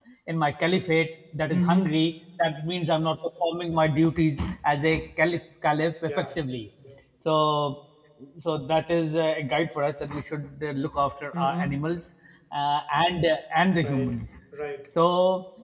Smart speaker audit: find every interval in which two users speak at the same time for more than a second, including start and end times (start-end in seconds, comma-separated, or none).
none